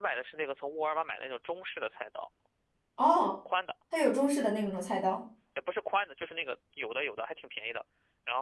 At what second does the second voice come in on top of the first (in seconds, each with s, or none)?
none